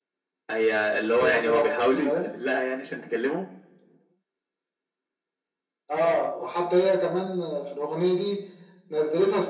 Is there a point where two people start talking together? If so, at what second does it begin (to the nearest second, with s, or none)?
1 s